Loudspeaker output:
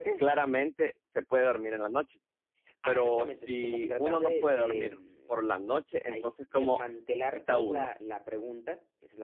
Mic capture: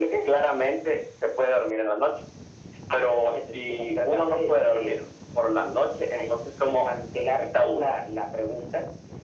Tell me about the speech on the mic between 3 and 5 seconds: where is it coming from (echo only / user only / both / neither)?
echo only